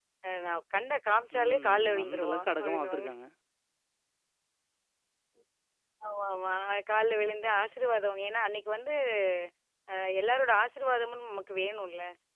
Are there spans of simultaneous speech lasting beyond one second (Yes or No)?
Yes